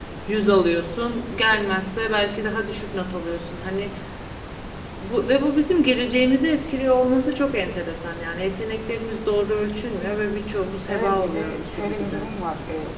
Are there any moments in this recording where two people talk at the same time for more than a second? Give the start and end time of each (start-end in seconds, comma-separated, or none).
10.9-12.3